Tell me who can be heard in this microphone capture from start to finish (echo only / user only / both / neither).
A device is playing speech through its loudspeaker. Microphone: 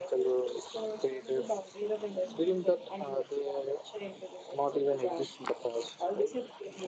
both